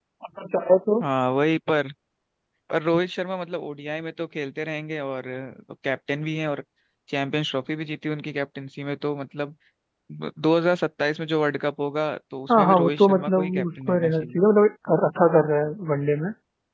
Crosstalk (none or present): present